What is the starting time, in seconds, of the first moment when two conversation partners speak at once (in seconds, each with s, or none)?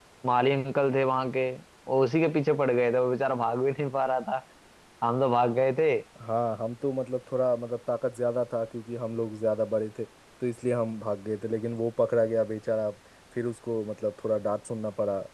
none